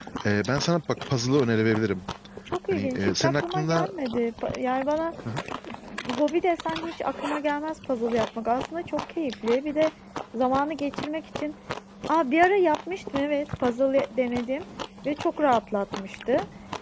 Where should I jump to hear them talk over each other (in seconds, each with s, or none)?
2.7 s